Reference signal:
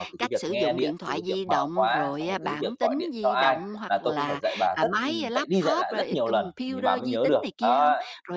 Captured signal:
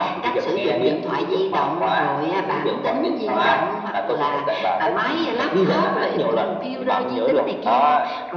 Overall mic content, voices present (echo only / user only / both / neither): echo only